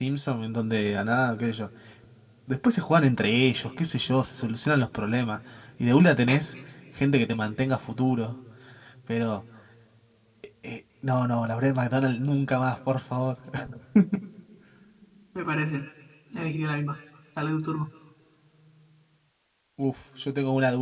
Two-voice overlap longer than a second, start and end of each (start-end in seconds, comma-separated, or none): none